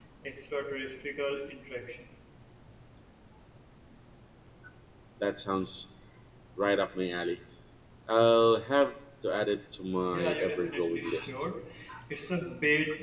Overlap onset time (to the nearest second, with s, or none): 10 s